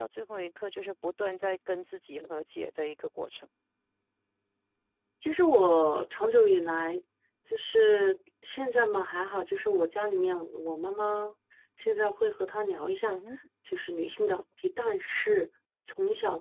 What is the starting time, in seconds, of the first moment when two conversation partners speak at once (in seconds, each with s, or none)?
none